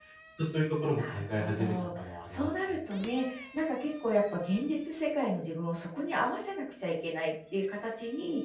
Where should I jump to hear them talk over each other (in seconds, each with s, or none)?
0.9 s